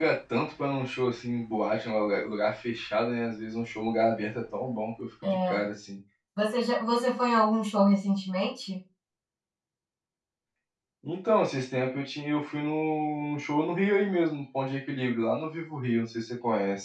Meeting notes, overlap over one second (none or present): none